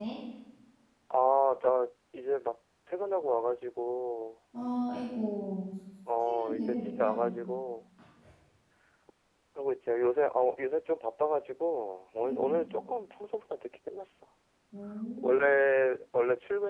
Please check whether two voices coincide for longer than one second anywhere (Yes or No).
Yes